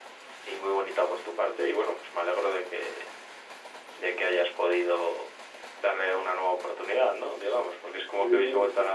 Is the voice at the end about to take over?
Yes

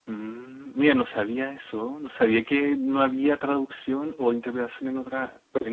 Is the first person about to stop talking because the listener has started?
Yes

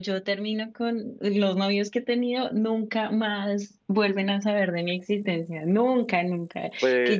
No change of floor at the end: Yes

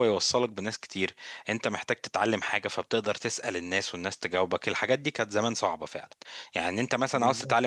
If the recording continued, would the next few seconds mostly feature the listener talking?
No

